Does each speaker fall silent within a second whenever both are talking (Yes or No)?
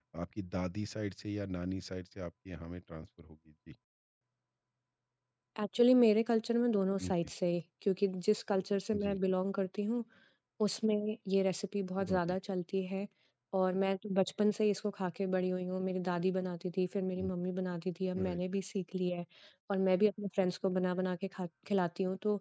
Yes